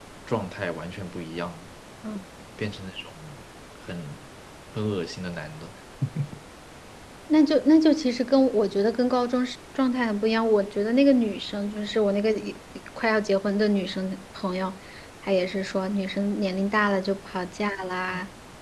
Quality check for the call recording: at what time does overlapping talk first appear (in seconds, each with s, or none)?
none